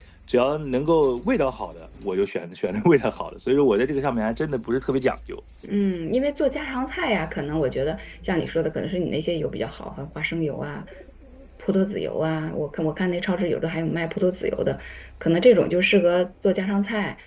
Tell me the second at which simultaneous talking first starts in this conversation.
none

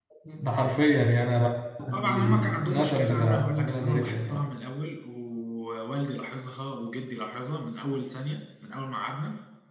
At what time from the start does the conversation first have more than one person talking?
2 s

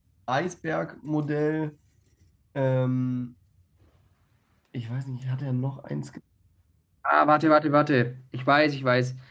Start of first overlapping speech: none

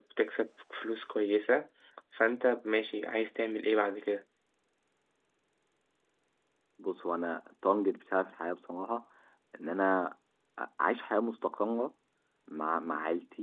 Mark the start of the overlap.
none

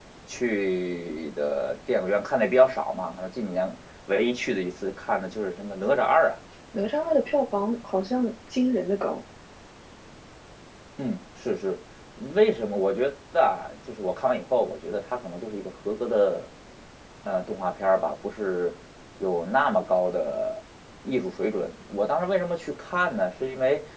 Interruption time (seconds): none

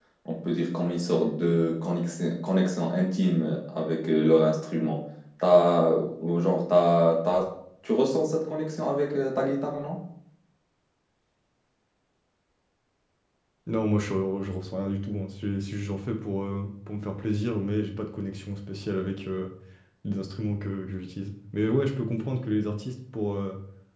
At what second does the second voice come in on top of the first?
none

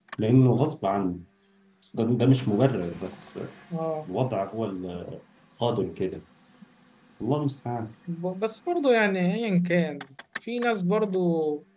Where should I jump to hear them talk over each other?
none

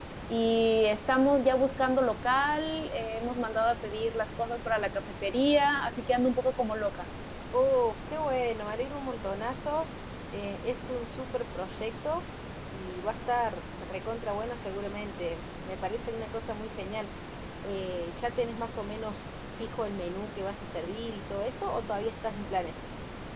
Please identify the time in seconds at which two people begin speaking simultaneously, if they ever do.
none

